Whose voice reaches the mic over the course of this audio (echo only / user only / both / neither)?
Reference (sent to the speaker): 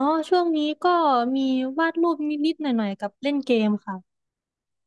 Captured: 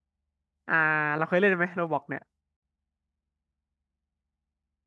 user only